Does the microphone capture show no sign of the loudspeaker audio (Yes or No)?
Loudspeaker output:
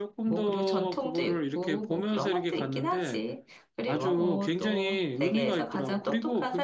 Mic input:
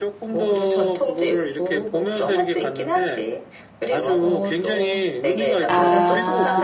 No